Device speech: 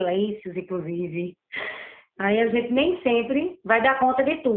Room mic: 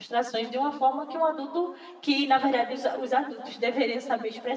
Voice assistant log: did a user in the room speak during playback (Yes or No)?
Yes